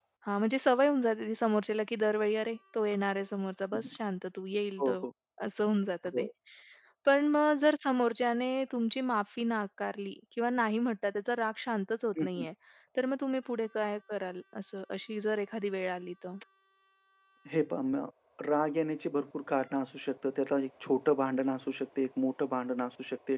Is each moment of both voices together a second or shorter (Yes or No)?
Yes